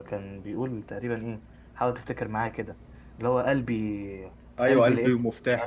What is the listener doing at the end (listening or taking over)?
taking over